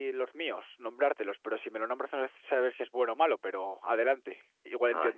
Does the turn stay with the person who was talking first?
No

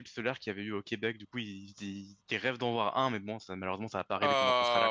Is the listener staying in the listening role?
No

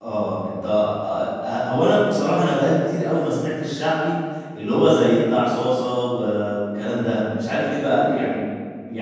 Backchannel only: Yes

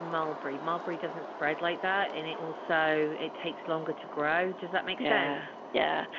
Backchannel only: No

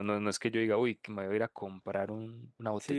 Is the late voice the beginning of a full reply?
Yes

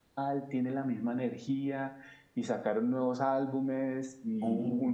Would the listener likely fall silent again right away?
Yes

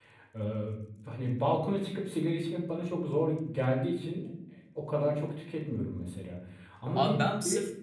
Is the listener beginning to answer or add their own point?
Yes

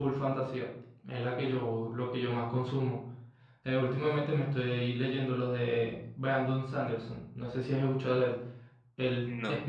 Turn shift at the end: No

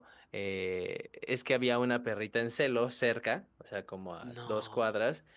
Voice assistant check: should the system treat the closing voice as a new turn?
No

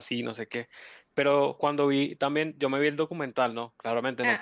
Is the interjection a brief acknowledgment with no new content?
Yes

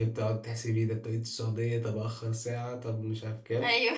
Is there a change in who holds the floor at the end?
No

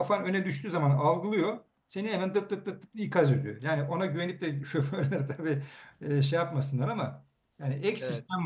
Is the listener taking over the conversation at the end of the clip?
No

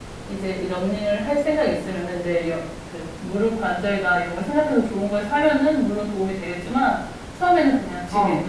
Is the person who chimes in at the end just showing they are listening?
Yes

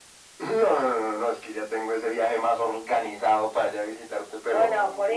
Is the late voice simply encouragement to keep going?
No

